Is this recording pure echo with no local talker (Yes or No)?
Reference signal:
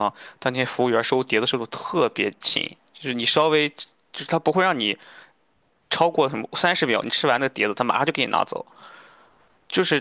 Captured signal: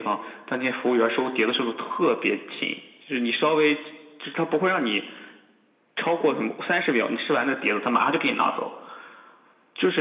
No